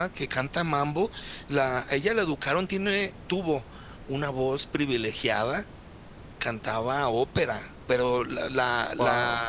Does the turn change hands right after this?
No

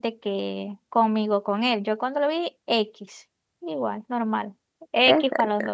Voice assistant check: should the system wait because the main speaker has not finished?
Yes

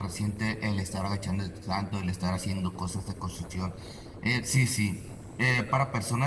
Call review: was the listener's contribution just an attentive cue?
Yes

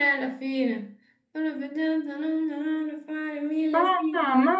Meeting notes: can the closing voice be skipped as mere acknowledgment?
No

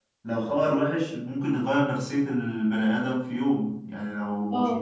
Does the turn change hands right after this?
No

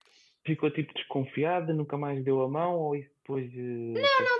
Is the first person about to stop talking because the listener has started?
Yes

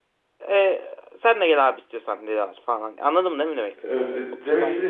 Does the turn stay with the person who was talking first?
No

